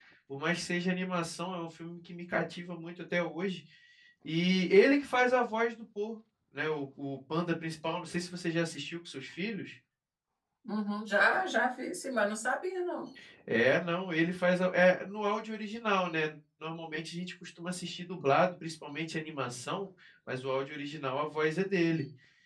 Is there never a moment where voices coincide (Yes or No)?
Yes